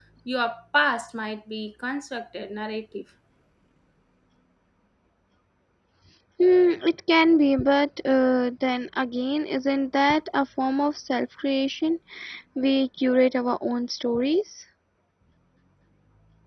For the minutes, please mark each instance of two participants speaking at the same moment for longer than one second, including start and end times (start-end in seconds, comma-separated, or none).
none